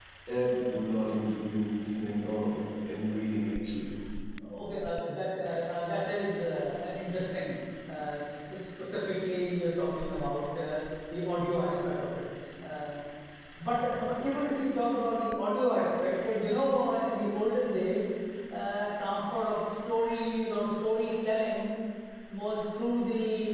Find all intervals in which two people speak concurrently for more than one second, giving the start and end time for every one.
none

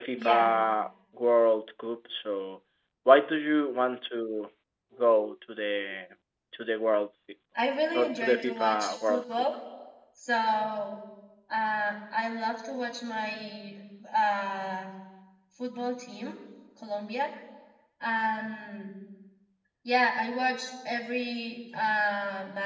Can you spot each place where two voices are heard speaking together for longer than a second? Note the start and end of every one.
7.9-9.4

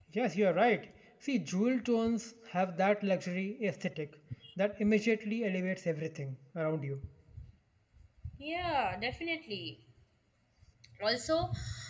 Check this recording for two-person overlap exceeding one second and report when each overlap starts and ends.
none

